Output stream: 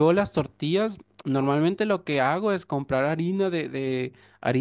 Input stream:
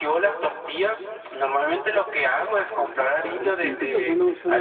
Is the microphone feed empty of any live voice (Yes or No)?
No